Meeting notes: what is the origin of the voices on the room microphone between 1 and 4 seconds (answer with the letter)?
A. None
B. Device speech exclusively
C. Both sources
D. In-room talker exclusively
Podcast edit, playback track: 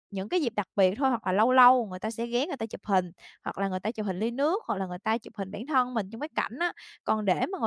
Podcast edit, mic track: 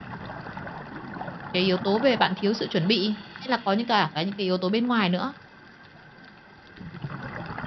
D